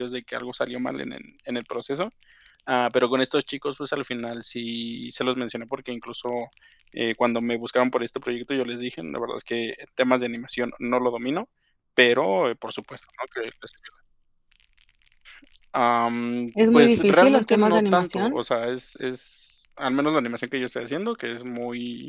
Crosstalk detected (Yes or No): Yes